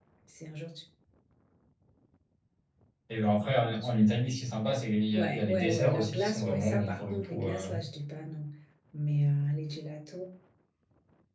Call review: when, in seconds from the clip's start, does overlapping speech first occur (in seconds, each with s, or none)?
5.1 s